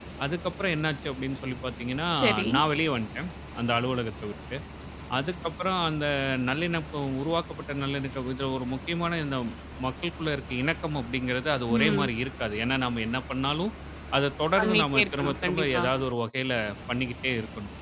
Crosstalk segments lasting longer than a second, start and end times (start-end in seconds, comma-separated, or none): 14.6-15.8